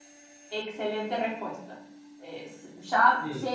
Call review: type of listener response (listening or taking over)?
listening